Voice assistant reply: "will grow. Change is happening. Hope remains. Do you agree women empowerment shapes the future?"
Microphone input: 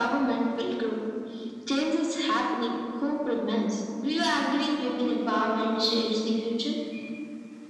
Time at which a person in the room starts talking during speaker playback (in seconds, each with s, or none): none